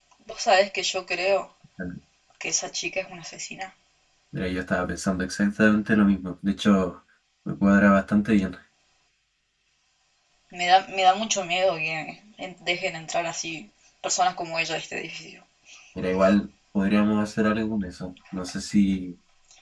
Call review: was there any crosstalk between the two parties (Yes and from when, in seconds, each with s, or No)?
No